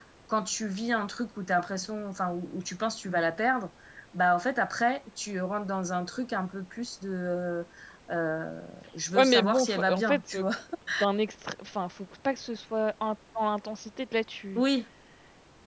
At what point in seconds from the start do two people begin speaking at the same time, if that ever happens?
9.1 s

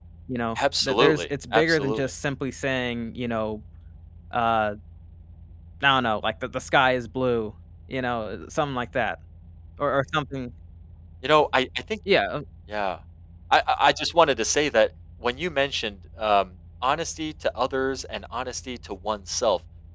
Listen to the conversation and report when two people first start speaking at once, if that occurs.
0.6 s

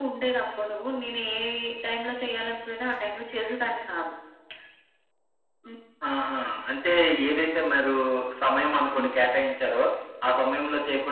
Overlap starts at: none

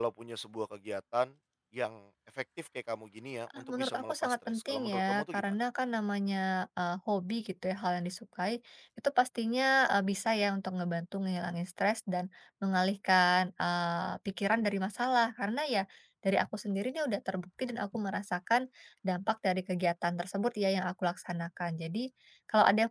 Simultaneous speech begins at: 3.5 s

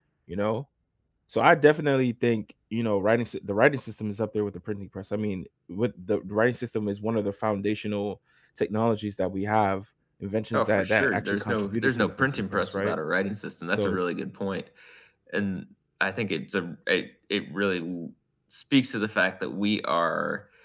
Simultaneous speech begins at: 10.5 s

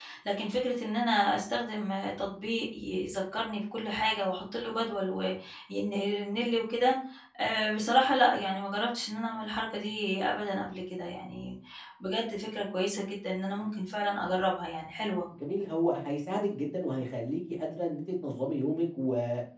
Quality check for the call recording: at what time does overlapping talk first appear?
none

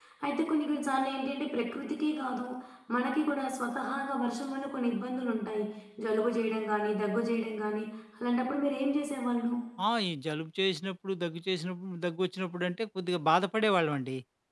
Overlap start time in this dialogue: none

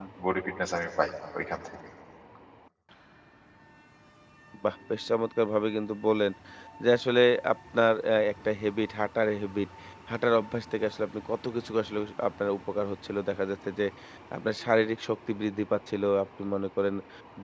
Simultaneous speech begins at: none

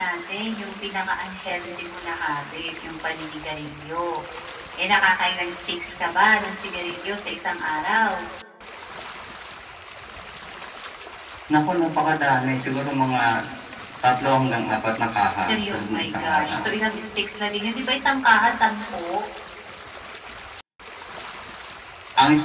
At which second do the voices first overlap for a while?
15.5 s

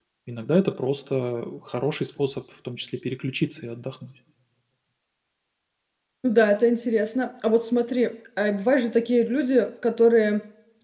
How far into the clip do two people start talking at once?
none

